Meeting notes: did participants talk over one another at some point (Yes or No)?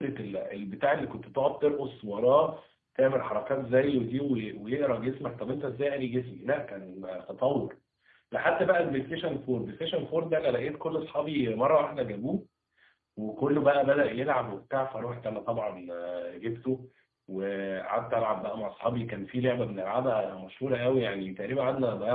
No